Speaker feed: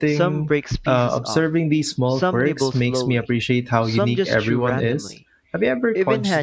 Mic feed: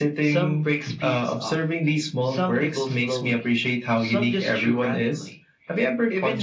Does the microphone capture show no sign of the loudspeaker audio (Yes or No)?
No